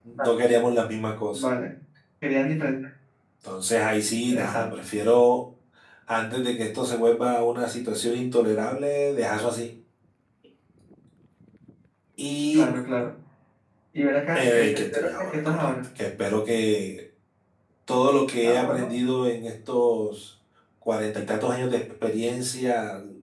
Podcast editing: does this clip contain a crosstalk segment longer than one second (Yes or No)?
Yes